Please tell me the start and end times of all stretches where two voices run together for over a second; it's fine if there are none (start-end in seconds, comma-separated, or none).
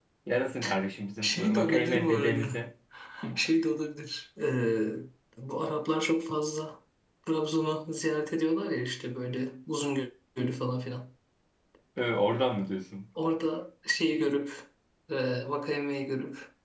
1.2-2.4